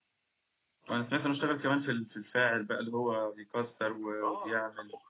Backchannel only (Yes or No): No